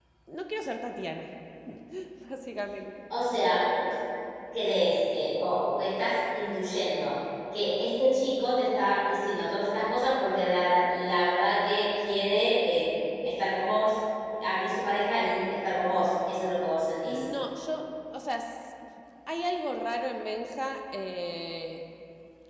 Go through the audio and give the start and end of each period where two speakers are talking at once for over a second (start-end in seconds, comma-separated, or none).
none